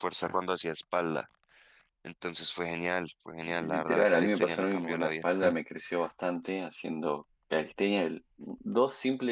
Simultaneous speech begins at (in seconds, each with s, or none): 3.5 s